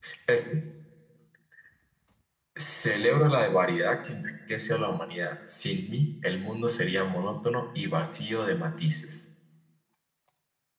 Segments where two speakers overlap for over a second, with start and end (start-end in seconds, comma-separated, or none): none